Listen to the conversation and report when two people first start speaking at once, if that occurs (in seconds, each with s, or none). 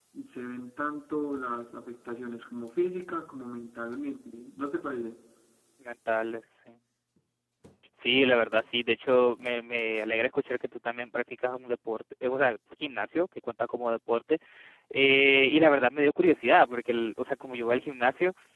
none